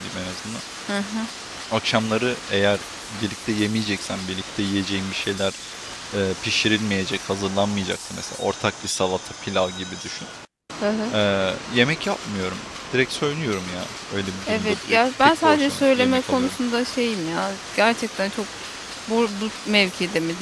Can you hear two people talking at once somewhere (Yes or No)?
Yes